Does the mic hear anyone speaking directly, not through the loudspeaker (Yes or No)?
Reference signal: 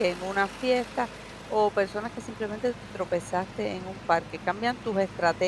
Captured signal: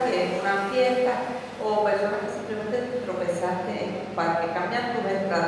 No